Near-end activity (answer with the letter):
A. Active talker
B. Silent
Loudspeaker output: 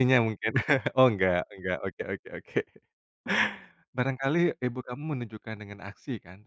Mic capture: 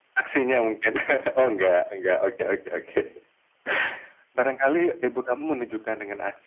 B